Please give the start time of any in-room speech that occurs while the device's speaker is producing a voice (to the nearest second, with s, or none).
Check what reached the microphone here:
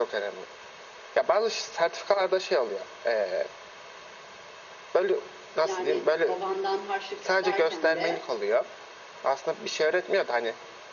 6 s